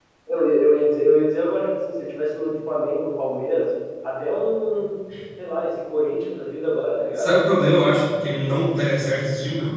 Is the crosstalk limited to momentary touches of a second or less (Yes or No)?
Yes